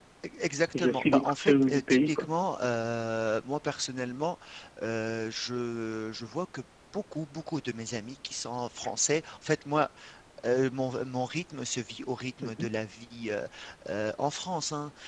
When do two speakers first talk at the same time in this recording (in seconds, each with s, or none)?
0.7 s